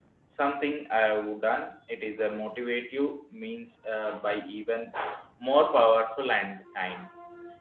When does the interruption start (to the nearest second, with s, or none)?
none